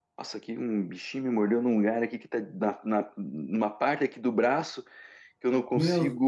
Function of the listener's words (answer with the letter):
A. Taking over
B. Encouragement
B